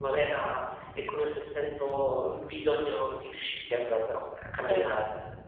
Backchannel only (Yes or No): No